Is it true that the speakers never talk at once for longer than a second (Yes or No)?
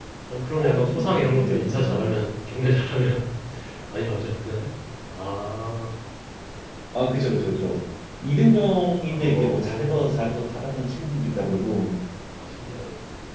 No